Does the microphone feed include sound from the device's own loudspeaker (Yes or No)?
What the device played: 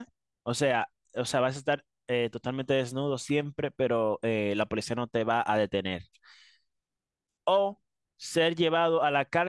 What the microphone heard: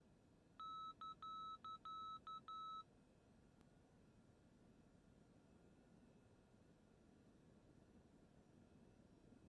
No